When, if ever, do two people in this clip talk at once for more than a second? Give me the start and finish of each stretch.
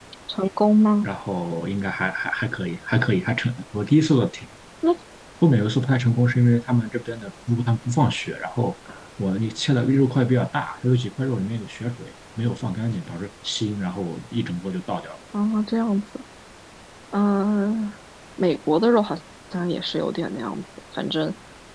none

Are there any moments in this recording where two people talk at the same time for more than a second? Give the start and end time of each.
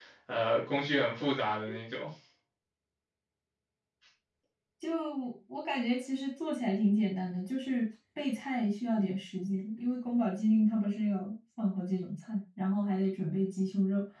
none

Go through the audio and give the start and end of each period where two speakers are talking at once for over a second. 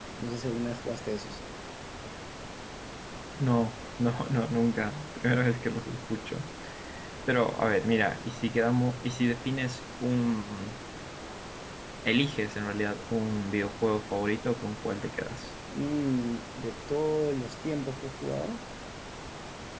none

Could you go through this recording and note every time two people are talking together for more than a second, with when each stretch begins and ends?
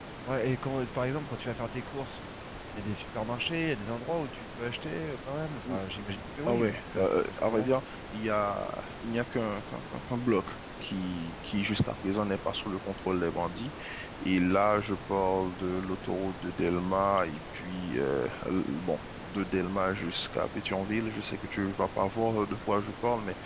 6.5-7.7

